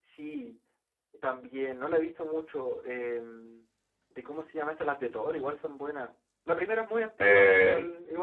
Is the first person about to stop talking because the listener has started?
Yes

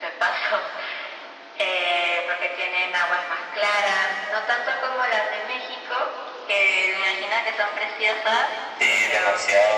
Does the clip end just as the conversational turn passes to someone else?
Yes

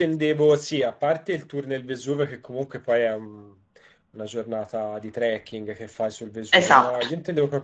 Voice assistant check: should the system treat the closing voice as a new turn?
No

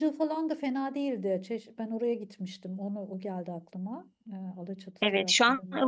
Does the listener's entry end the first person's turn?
Yes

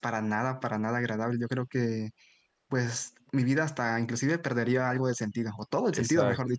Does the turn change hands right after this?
Yes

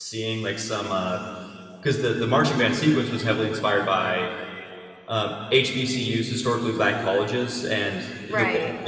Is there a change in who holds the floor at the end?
No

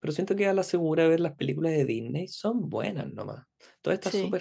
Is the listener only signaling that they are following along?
Yes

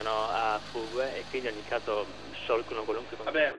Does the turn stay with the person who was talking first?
No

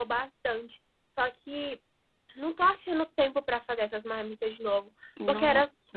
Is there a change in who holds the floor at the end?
No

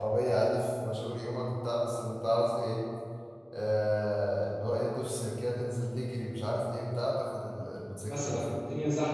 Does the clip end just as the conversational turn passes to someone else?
Yes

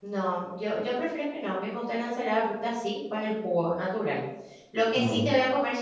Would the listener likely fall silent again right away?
Yes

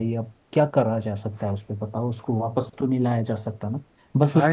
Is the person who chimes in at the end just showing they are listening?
No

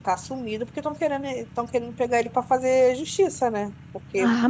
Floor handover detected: Yes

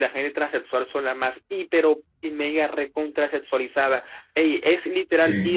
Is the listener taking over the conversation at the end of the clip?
No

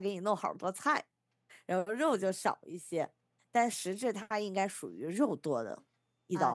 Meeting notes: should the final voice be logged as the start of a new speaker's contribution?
Yes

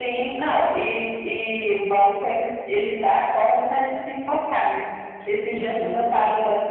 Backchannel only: Yes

